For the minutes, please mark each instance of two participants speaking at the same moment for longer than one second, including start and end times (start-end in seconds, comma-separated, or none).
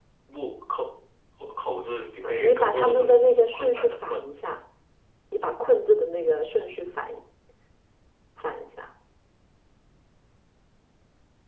2.2-4.2